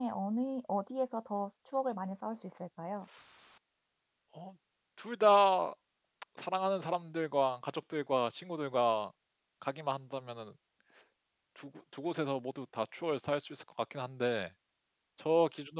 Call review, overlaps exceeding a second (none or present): none